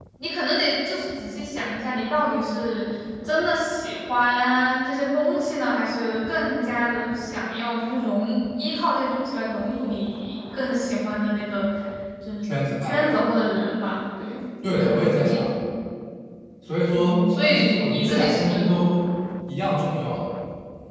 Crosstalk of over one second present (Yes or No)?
Yes